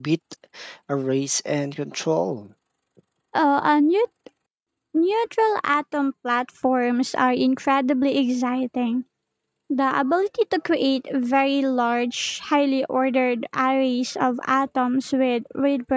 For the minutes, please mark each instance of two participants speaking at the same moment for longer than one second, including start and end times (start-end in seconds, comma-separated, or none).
none